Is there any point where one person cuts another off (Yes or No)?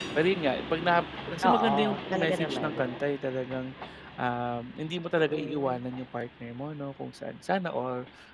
Yes